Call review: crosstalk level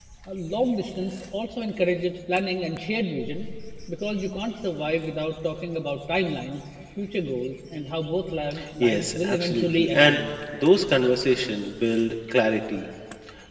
present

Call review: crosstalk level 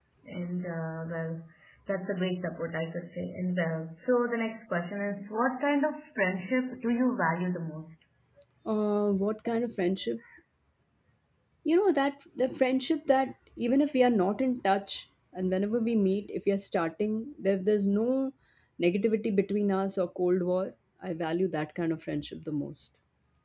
none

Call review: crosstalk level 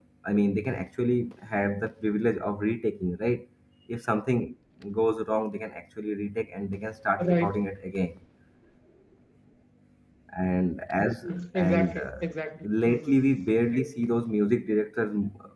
present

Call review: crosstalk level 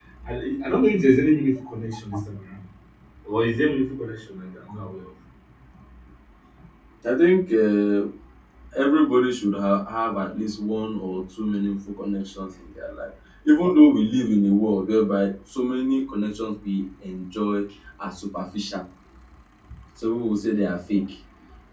none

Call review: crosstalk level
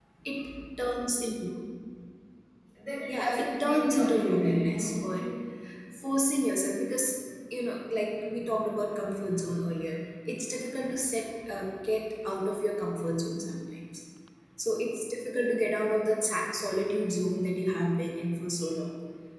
present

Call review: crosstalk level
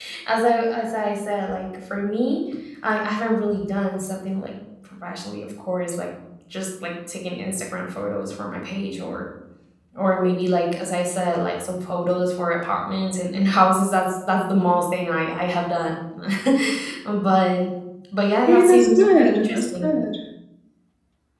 present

